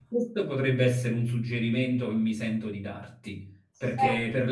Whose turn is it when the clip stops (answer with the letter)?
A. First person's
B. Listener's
A